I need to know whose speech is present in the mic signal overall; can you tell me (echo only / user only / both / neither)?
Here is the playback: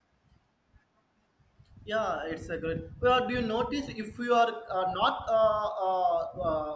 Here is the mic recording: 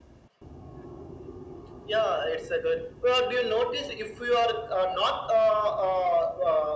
echo only